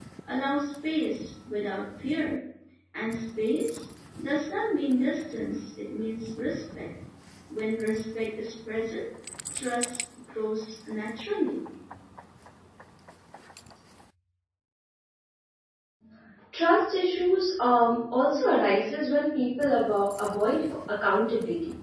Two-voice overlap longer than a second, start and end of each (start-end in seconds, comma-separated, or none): none